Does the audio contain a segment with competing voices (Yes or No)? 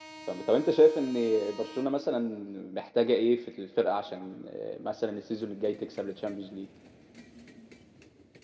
No